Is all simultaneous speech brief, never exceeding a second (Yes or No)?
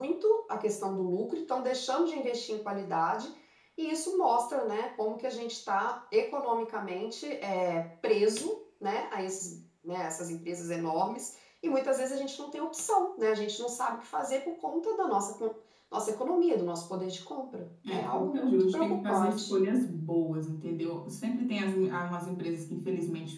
No